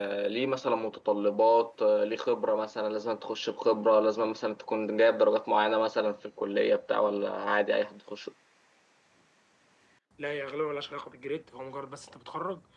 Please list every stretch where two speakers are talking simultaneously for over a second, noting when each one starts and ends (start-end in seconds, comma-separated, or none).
none